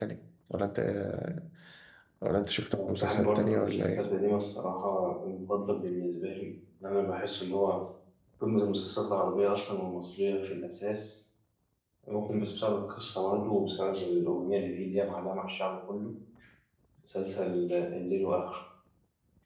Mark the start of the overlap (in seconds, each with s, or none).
2.7 s